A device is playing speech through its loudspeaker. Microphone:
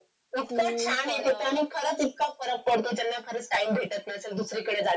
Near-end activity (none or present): present